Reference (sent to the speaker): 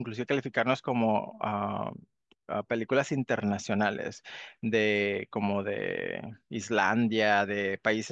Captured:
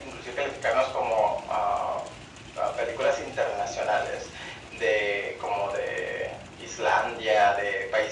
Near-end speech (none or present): none